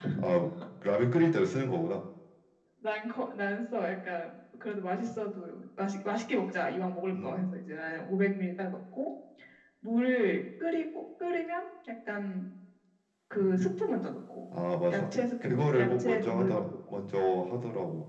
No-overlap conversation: No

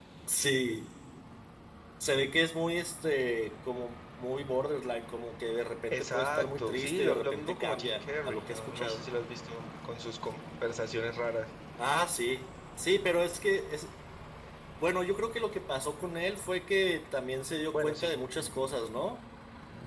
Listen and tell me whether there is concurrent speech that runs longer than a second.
Yes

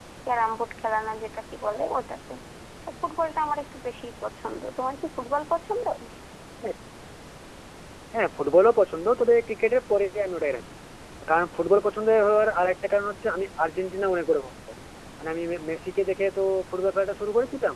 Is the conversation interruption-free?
Yes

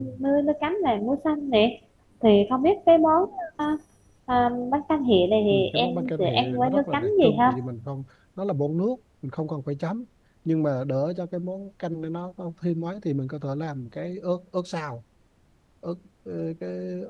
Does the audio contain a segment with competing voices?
Yes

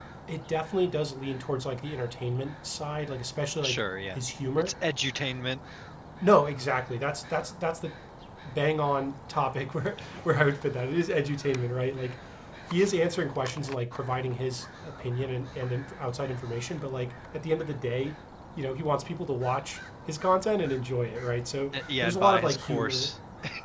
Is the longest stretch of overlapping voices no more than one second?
No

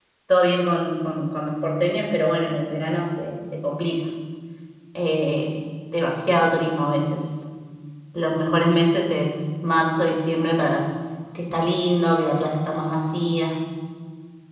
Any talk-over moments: No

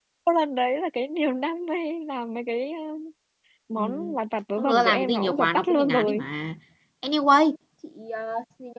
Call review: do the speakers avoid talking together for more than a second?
No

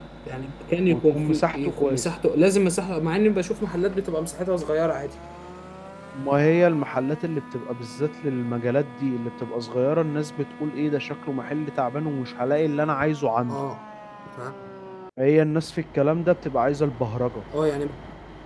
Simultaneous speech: Yes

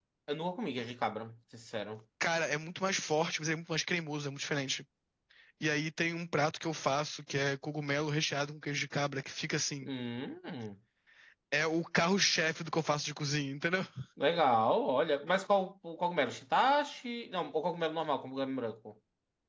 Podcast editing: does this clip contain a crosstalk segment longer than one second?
No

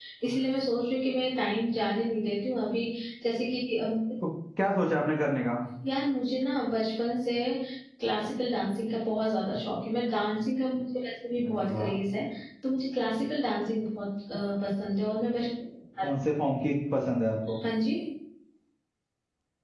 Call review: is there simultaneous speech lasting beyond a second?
No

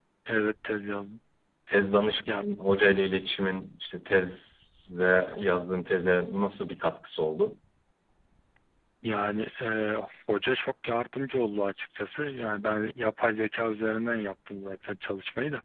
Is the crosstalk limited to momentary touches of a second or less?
Yes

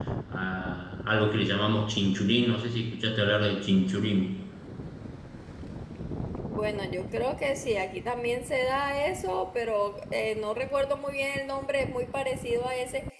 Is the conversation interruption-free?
Yes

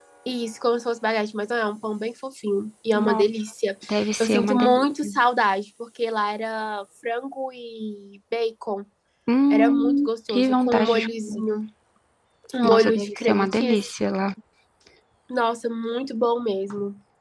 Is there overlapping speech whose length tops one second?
Yes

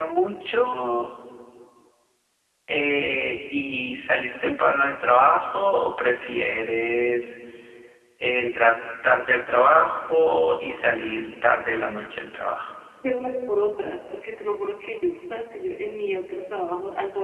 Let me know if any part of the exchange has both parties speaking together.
No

